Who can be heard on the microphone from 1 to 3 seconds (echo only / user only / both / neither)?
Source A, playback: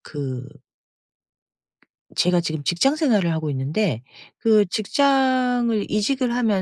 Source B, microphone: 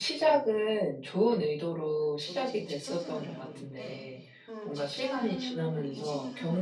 both